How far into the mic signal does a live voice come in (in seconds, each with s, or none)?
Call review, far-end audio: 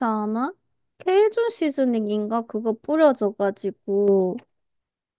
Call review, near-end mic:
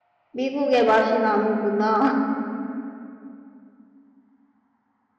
0.3 s